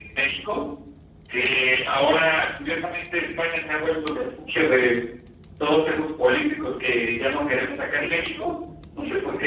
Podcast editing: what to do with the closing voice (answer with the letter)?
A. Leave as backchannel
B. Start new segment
A